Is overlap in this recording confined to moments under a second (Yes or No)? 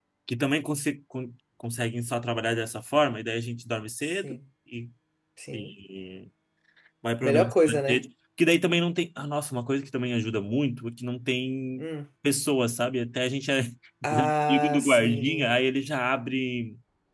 No